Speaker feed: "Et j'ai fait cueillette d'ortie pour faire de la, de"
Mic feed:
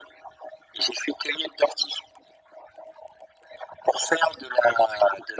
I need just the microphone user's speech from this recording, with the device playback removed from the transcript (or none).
none